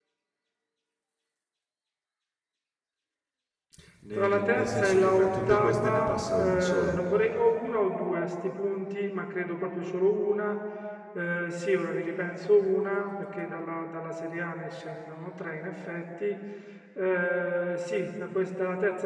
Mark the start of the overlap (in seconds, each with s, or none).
4.1 s